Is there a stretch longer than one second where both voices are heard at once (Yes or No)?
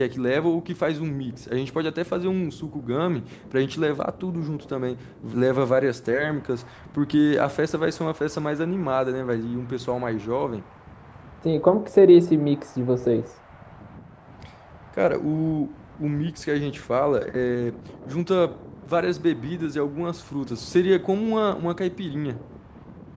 No